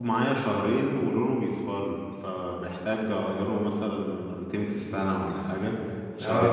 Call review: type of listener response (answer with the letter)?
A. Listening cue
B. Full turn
A